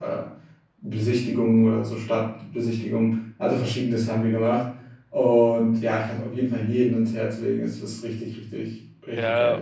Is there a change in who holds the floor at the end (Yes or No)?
Yes